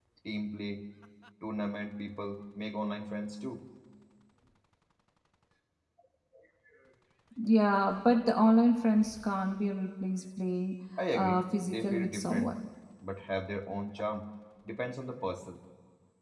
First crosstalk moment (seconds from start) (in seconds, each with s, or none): 11.0 s